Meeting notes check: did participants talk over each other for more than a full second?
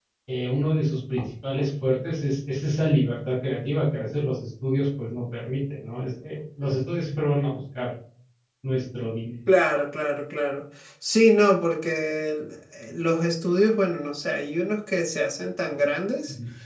No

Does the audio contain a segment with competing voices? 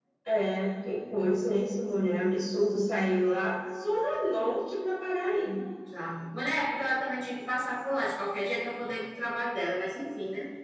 No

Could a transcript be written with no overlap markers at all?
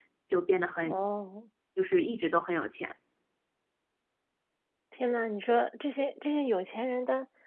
Yes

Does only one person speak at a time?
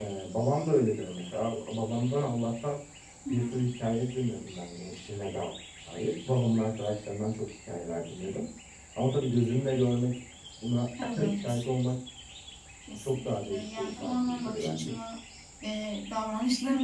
No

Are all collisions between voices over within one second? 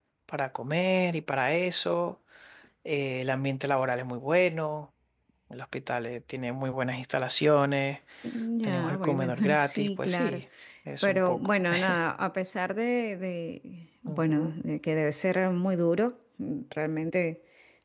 No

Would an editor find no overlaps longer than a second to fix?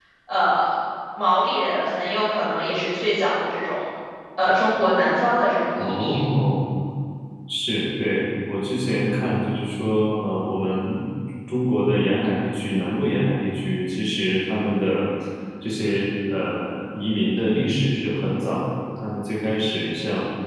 Yes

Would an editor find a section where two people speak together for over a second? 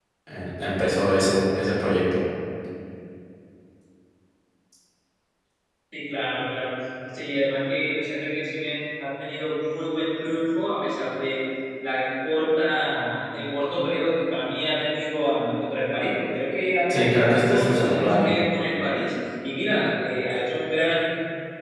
Yes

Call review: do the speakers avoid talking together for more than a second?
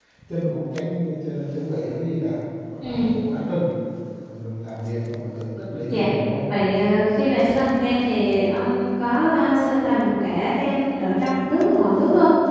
Yes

